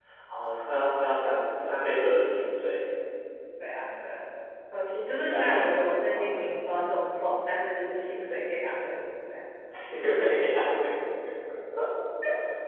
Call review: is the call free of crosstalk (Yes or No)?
No